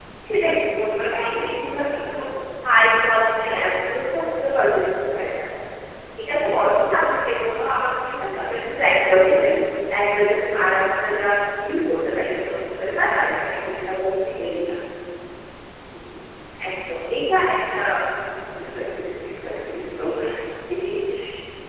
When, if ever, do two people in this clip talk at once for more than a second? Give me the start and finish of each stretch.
none

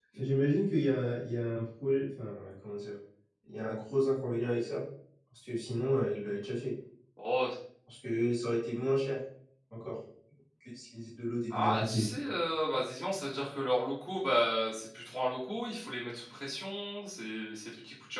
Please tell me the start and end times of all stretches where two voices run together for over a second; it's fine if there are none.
none

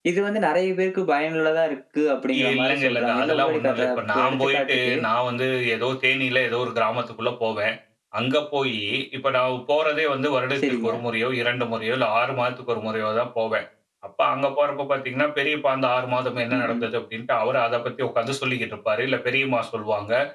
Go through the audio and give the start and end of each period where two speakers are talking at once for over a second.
2.4-5.0

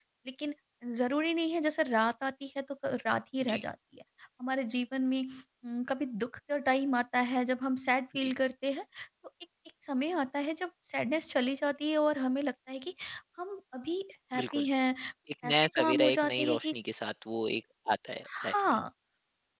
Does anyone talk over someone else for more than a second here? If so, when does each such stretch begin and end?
15.4-16.7

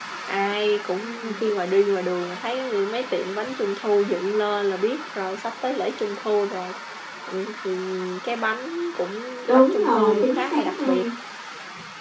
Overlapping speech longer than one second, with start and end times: 9.5-11.0

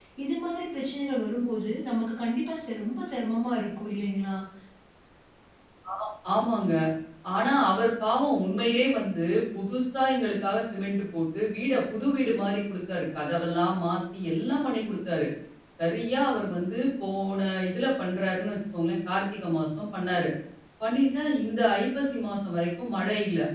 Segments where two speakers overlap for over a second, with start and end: none

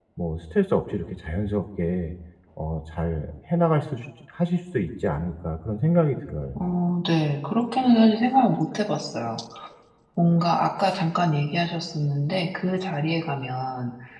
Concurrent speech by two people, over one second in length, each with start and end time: none

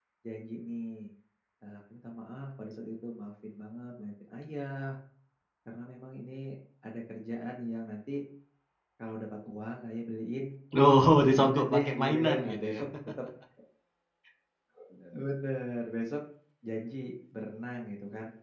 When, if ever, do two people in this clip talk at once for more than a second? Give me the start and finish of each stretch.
11.3-12.7

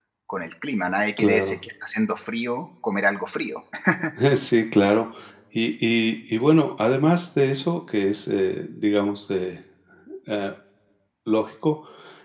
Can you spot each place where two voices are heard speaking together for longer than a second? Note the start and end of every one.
none

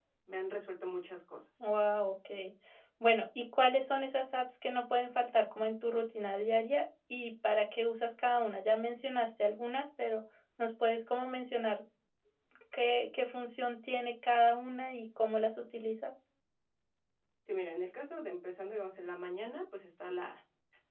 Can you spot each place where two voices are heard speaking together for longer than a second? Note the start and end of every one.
none

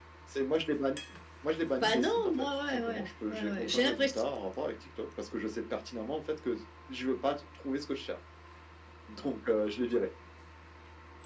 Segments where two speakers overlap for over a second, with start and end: 1.8-4.2

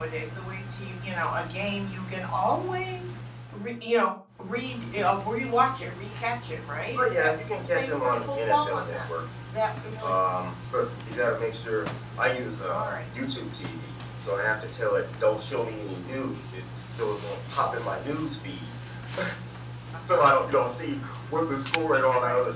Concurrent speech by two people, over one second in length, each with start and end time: 7.0-9.0

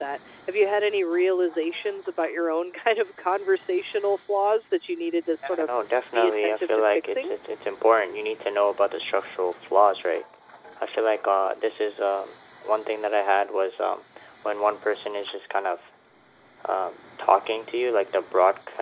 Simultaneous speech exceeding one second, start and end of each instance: 6.1-7.3

